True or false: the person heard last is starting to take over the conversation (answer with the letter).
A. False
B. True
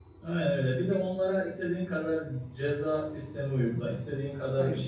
A